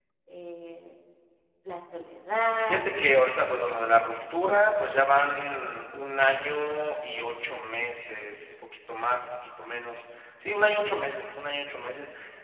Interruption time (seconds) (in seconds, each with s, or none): 2.6 s